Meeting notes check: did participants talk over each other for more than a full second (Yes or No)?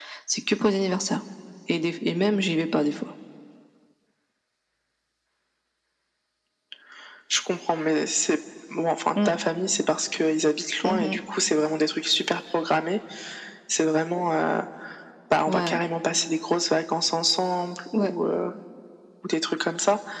No